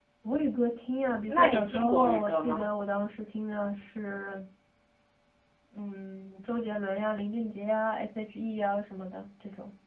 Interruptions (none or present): present